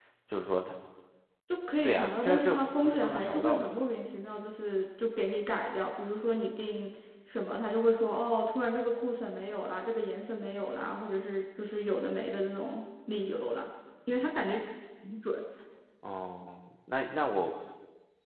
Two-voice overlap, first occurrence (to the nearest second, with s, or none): 2 s